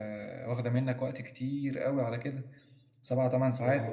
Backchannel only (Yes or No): Yes